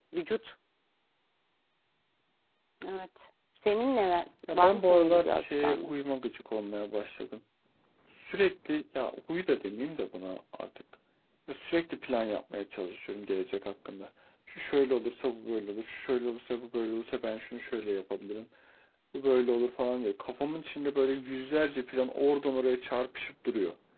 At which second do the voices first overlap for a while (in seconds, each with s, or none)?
4.5 s